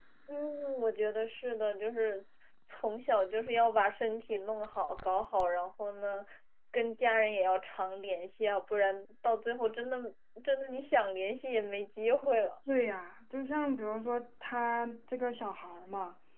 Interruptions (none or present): none